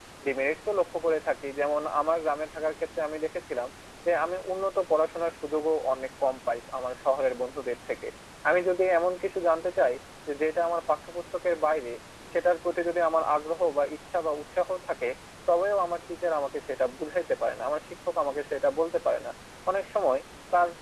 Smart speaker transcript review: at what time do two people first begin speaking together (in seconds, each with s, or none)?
none